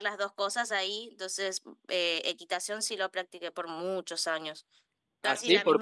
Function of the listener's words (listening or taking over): taking over